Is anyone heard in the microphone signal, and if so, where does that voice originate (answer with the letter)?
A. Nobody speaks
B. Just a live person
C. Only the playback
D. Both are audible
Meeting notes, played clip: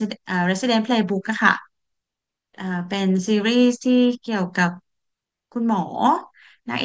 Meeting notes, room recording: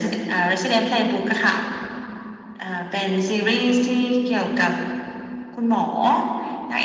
C